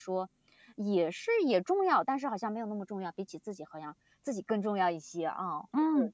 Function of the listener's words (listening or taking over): taking over